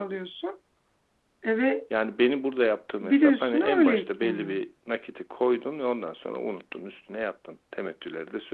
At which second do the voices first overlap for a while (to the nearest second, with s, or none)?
3 s